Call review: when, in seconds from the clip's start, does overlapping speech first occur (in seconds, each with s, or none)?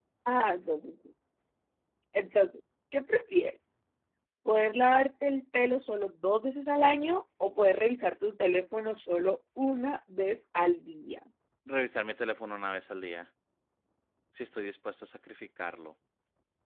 none